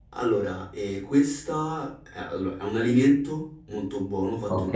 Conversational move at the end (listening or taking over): listening